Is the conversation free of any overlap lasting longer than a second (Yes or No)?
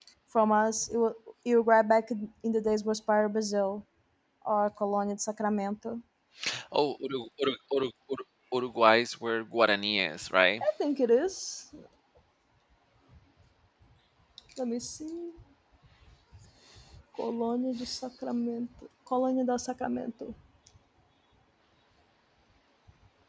Yes